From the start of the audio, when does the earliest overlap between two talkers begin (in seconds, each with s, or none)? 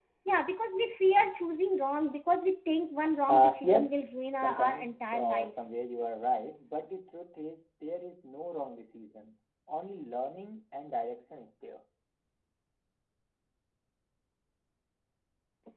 3.3 s